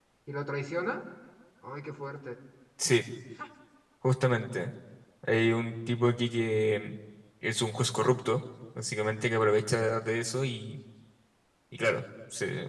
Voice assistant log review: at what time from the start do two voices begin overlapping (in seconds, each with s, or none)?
none